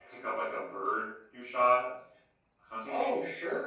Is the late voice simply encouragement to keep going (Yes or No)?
No